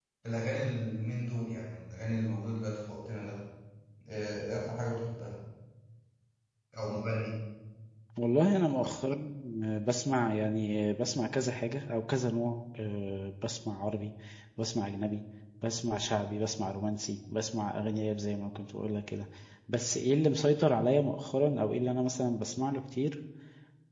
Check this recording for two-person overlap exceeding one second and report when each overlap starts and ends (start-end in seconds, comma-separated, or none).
none